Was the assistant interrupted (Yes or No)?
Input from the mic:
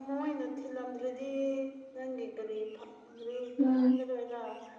Yes